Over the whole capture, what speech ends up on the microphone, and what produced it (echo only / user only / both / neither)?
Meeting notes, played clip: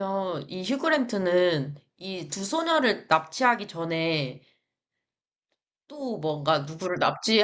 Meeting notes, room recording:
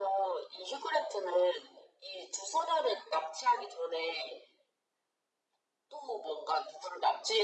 echo only